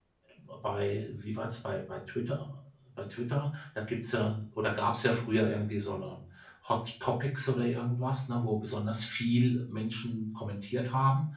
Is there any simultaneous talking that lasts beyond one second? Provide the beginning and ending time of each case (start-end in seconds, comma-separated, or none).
none